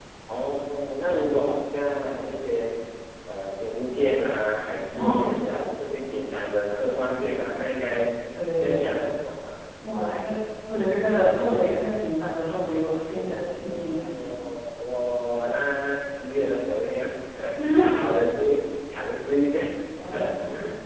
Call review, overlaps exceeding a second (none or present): present